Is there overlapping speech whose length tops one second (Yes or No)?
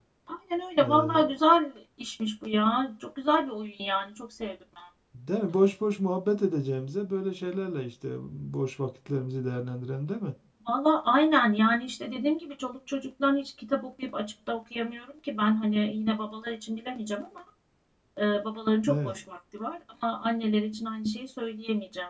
No